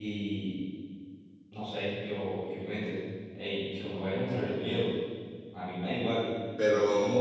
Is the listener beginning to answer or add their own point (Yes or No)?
Yes